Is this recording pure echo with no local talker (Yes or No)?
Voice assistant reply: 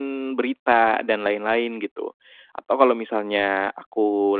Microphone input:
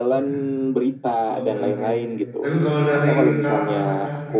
No